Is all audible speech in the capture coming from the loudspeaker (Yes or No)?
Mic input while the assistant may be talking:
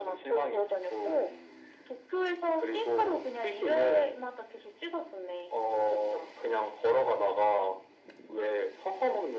Yes